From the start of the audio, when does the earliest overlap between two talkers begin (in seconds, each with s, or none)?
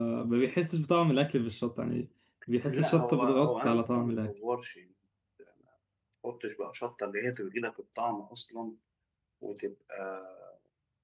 2.7 s